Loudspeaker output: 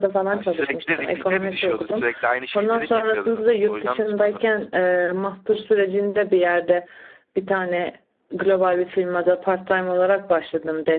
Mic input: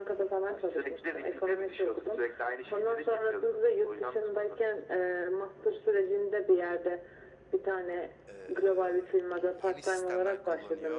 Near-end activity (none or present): present